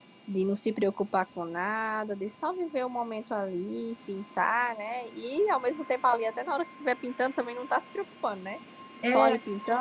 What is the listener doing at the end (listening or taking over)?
listening